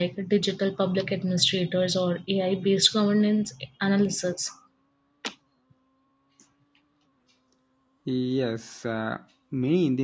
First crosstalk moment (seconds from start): none

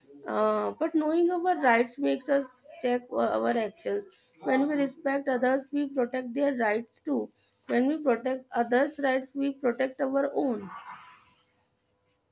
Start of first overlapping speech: none

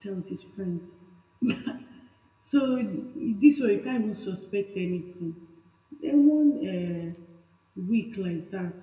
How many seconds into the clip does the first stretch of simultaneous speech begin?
none

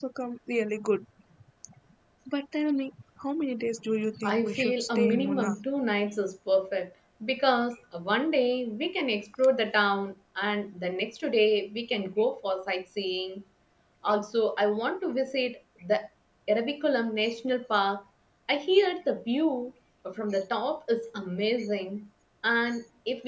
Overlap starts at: 4.2 s

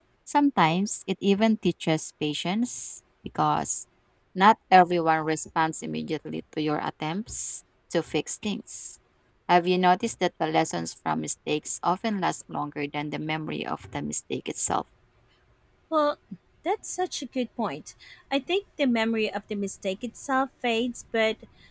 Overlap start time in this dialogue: none

